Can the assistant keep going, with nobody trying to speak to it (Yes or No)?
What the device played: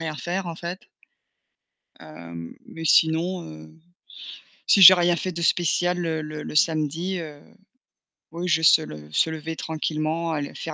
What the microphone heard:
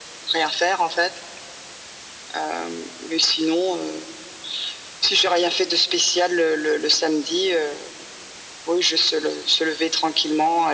Yes